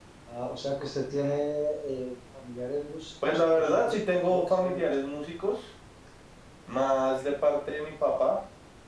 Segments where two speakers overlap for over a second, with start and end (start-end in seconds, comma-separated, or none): 3.2-4.9